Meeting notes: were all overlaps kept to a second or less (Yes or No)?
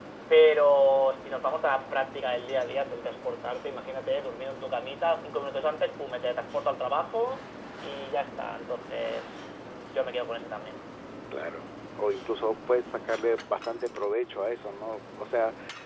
Yes